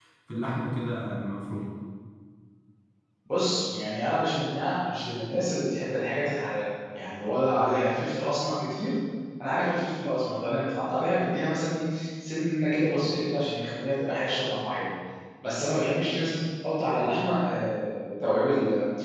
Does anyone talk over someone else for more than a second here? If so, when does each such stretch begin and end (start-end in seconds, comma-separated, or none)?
none